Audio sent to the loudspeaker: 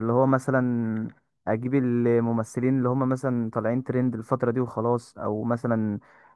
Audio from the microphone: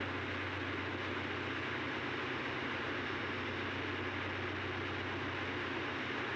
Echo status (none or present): none